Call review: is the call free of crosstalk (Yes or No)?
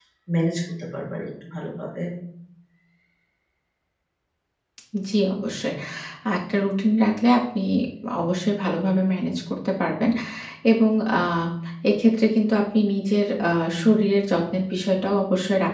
Yes